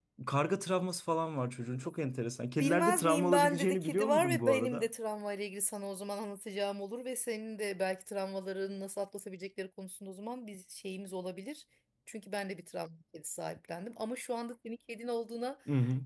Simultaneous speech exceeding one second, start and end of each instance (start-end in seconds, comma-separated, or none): 2.6-4.9